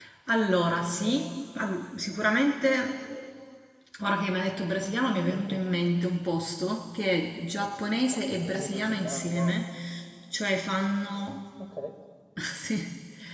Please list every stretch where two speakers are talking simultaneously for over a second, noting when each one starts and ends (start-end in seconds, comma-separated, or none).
8.1-9.5